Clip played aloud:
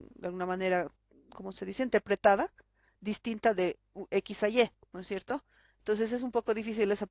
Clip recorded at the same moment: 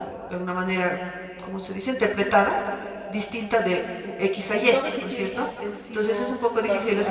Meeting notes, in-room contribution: present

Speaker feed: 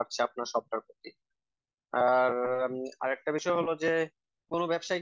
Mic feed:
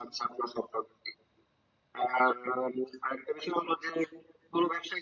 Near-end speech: none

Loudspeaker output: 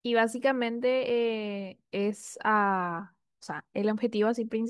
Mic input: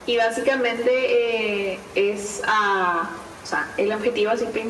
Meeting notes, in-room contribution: none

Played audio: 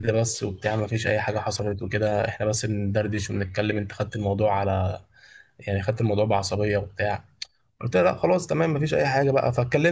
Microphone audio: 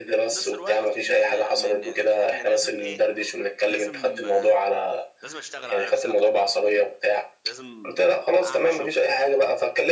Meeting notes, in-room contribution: present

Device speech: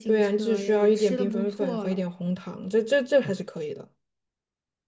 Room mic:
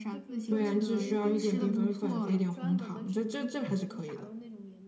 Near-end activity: present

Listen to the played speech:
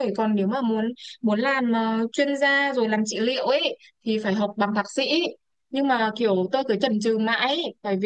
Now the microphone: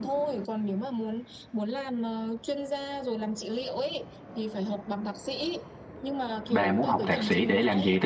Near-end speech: present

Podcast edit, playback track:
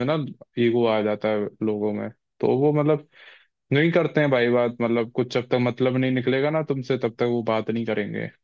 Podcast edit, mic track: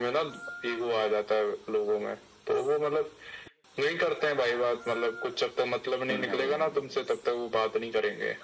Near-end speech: present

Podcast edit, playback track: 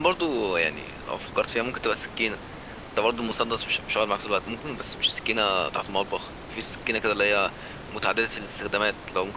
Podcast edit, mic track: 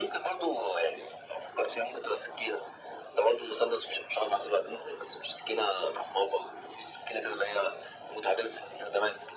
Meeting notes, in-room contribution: none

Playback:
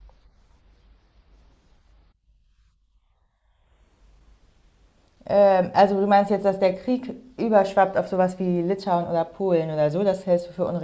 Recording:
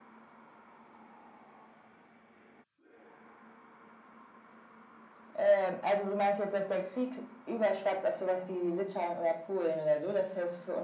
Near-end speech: none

